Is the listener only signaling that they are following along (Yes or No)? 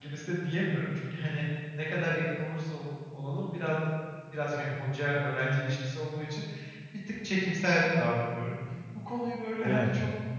Yes